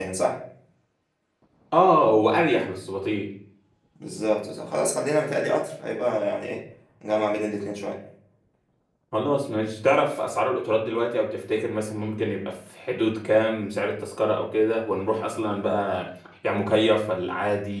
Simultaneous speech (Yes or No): No